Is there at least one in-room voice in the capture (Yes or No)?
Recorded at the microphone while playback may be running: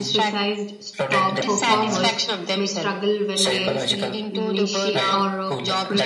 Yes